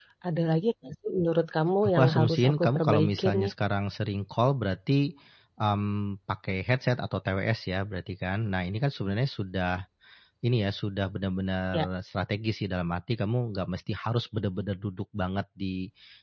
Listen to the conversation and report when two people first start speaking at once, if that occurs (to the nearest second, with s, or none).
2 s